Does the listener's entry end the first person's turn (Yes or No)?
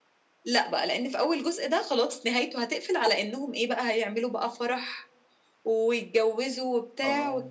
No